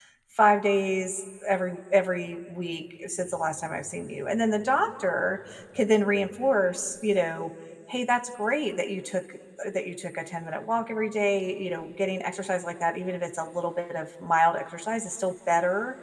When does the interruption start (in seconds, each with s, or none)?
none